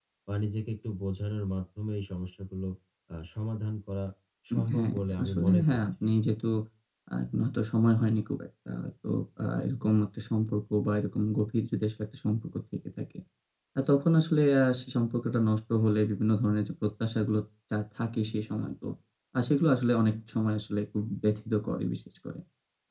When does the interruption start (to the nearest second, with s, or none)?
5 s